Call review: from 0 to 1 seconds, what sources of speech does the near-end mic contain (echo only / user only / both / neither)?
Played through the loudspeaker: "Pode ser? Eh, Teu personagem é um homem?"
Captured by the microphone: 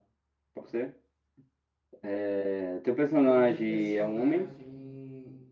echo only